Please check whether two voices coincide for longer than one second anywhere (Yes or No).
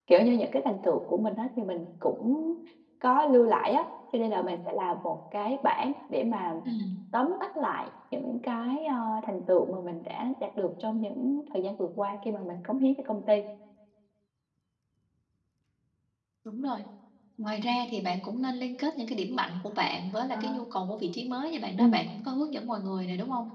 No